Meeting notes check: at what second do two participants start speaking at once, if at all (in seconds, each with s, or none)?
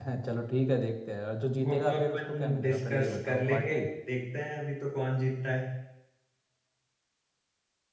1.6 s